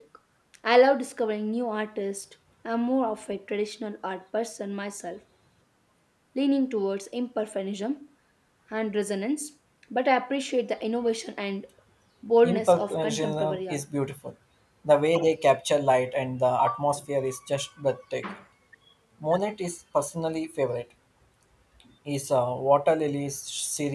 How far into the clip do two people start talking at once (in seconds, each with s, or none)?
12.4 s